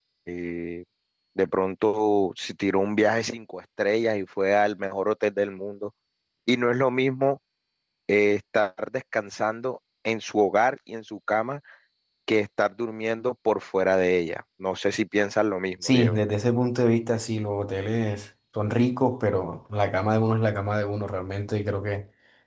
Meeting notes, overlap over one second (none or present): none